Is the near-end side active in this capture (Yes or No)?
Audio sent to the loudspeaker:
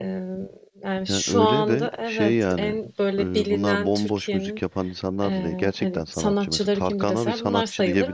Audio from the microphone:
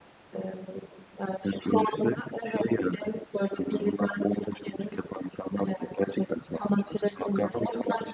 No